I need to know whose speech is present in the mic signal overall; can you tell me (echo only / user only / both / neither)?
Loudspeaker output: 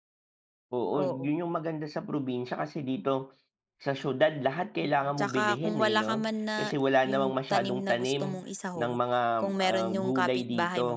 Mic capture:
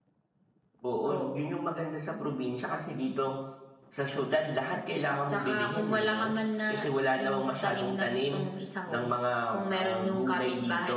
echo only